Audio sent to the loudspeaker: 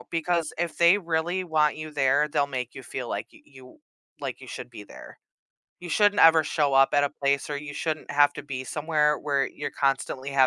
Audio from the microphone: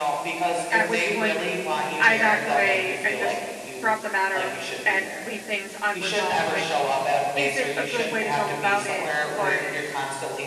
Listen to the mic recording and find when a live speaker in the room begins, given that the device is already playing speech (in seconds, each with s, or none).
0.7 s